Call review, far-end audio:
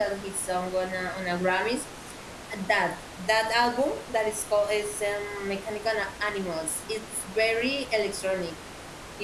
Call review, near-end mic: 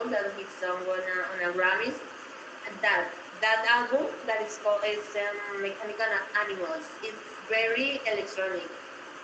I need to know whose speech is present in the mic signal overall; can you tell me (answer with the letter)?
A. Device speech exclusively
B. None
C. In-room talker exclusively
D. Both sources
A